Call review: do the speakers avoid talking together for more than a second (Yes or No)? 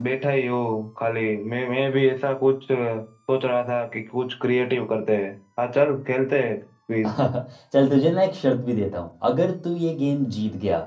Yes